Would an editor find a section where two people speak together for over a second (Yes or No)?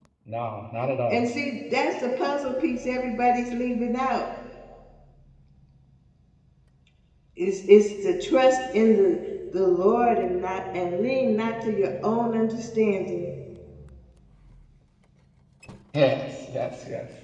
No